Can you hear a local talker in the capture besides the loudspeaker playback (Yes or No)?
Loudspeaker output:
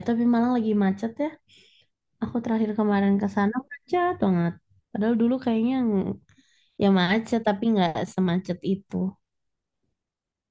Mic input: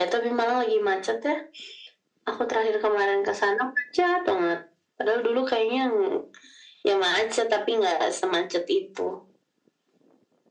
No